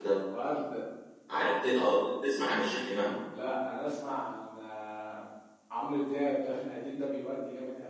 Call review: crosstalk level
none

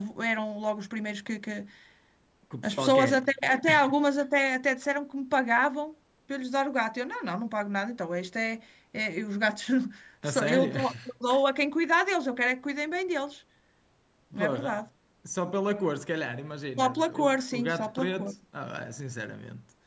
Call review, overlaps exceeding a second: present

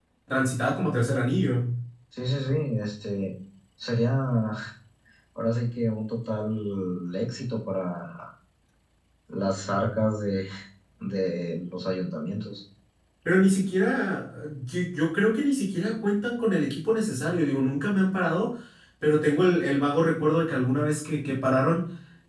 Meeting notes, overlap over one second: none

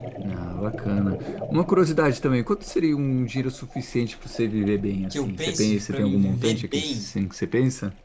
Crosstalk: present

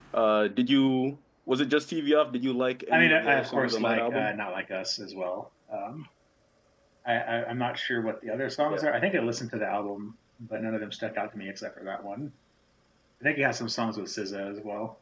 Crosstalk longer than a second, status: present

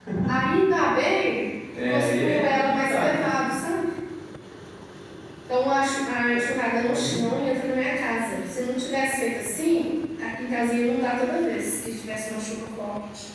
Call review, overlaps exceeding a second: present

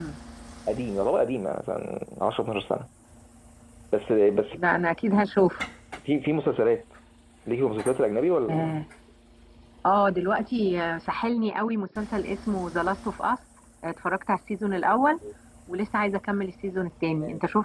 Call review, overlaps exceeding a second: none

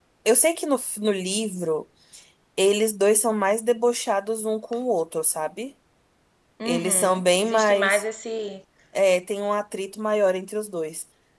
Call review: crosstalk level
present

